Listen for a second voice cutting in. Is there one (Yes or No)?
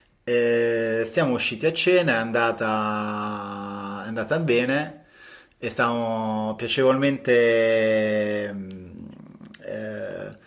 No